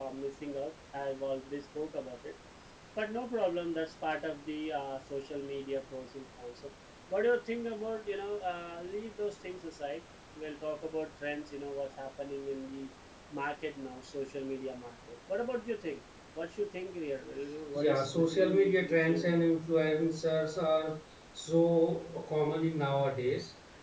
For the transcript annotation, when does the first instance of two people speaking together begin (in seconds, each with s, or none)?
17.7 s